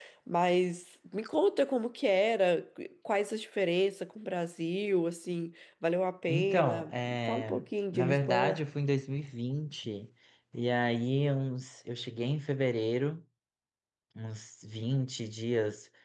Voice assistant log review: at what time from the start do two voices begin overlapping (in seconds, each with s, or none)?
6.3 s